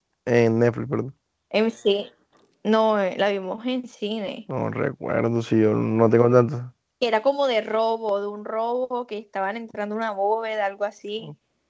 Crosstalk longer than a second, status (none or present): none